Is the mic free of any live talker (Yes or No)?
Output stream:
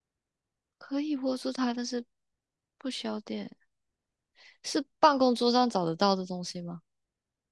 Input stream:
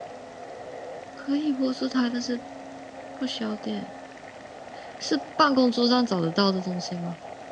Yes